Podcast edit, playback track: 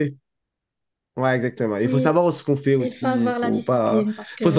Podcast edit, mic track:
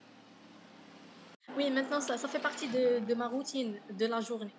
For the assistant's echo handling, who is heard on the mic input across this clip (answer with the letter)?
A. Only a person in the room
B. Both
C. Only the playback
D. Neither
A